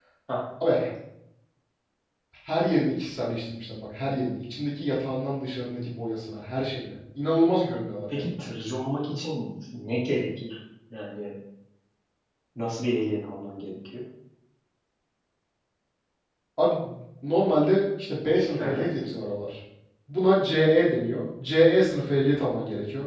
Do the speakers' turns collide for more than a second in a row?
No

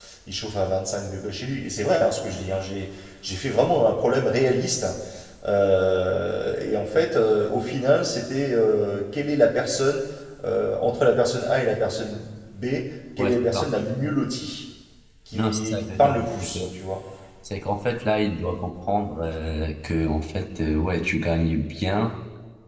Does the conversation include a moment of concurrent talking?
Yes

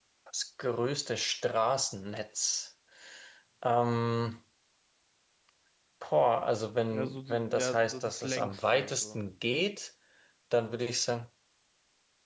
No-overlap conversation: No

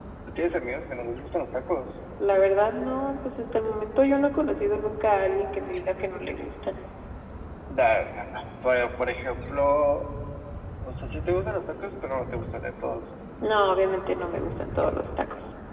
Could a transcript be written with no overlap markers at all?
Yes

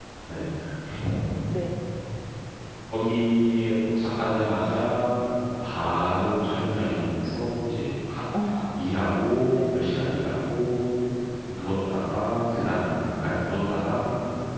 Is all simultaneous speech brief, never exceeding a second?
Yes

